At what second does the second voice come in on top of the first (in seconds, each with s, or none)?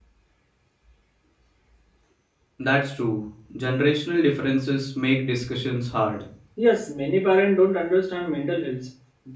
none